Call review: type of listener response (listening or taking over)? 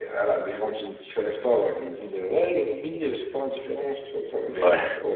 listening